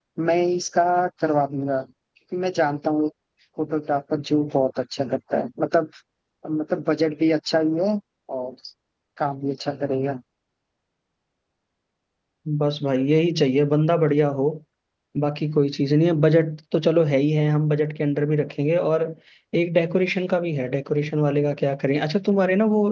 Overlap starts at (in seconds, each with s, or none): none